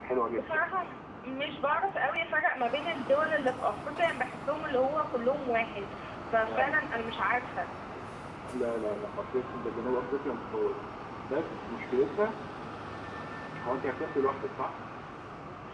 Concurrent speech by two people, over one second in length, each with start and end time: none

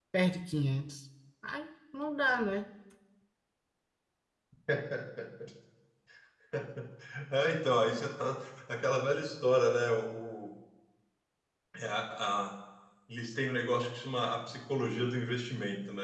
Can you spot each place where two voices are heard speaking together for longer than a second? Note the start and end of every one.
none

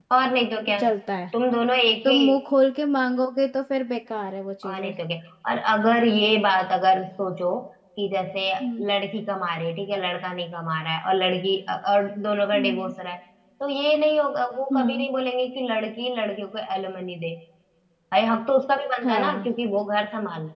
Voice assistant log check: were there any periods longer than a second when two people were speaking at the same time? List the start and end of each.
none

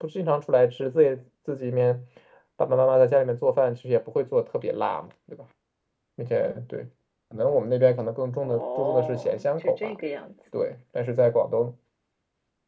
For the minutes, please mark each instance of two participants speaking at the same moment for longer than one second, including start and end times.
8.4-9.9

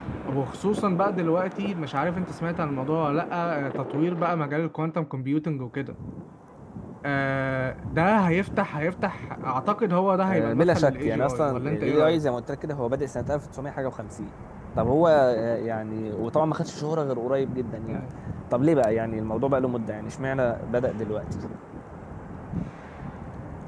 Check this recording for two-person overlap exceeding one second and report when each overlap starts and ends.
10.3-12.2

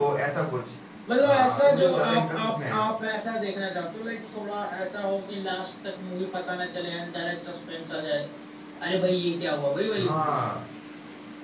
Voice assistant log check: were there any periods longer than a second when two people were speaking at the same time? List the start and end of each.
1.2-2.8

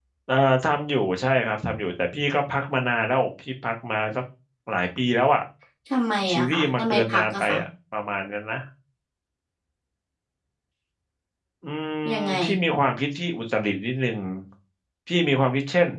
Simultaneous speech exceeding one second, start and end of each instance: 6.3-7.6

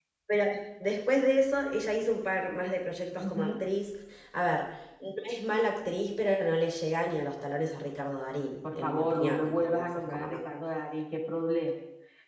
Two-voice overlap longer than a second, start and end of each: 8.8-10.4

